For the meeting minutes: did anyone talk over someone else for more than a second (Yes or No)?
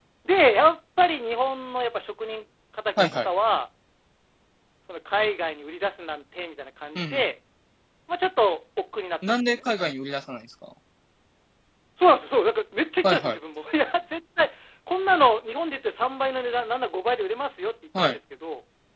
No